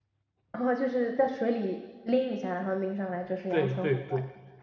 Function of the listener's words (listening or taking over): taking over